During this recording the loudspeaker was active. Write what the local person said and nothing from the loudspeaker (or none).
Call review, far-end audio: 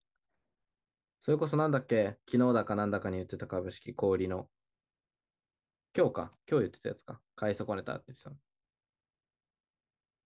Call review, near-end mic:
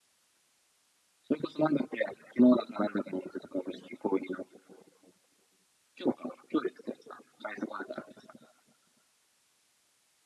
none